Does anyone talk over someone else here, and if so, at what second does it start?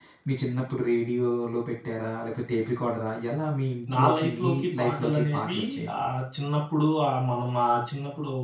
3.9 s

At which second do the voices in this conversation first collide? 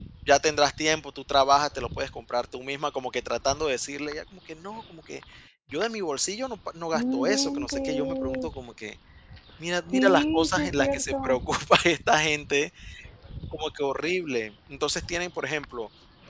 6.9 s

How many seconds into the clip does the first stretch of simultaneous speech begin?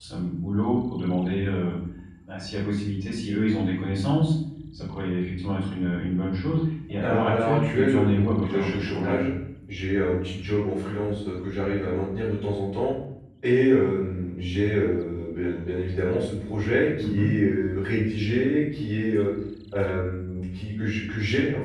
7.0 s

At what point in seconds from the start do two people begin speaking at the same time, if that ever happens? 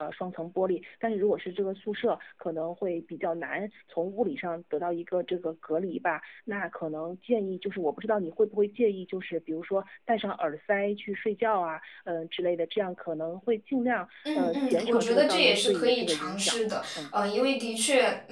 14.2 s

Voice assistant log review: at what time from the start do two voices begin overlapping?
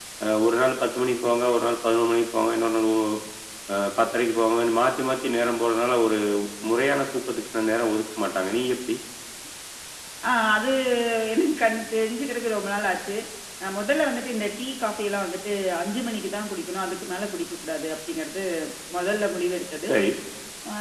none

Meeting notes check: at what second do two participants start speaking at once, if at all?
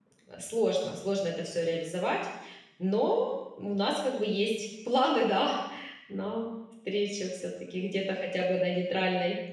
none

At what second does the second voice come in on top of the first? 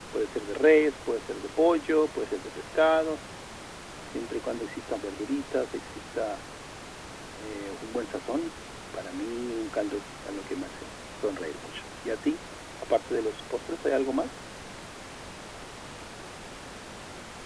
none

